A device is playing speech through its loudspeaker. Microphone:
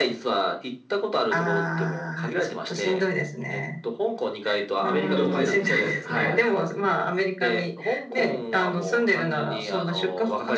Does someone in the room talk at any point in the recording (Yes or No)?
Yes